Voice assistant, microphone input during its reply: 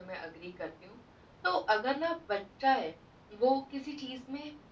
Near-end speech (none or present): none